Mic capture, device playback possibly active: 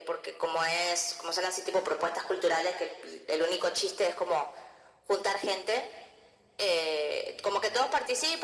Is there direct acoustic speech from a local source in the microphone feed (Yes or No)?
No